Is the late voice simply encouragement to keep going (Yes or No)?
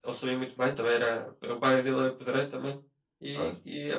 Yes